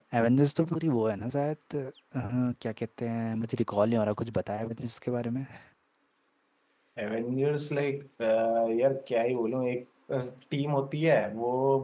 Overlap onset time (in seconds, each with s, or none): none